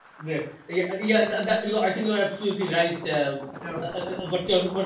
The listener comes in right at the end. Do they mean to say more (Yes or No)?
No